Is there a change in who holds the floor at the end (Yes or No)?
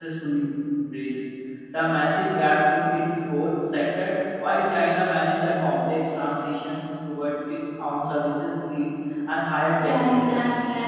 Yes